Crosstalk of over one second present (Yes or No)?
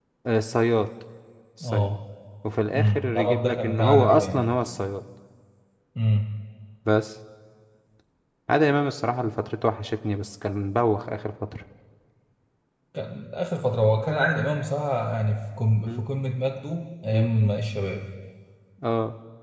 Yes